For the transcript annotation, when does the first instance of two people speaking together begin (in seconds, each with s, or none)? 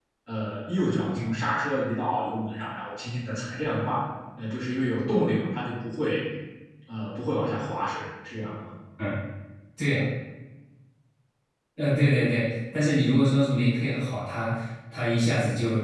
none